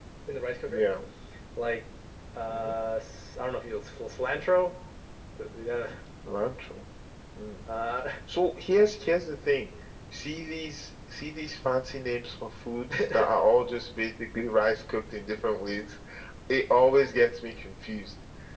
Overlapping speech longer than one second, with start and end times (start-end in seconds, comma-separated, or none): none